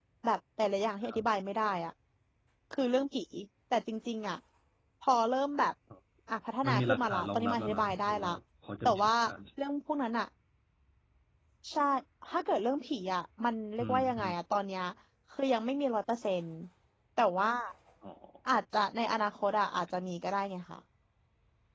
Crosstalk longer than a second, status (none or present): present